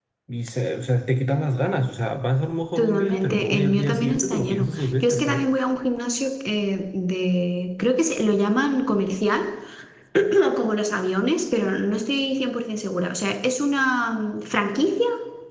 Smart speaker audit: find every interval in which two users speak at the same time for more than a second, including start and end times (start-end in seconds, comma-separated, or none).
2.8-5.4